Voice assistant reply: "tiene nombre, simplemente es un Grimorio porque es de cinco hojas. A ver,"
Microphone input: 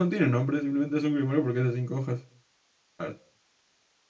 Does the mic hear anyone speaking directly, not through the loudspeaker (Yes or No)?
No